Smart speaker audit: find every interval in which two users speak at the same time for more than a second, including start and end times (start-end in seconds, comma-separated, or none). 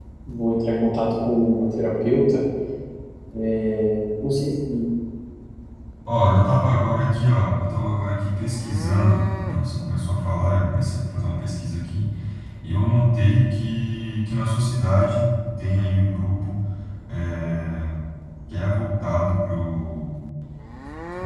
none